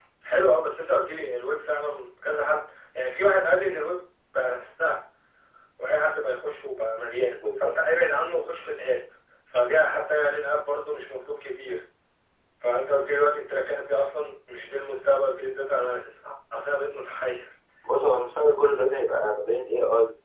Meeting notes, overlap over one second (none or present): none